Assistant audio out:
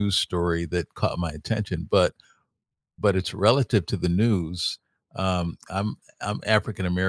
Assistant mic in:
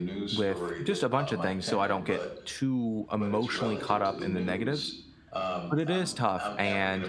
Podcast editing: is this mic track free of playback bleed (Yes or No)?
No